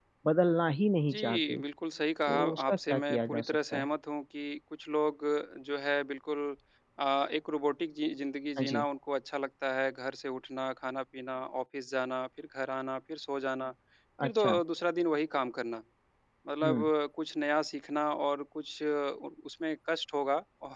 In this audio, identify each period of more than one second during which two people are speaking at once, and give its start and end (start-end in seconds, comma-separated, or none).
2.3-3.9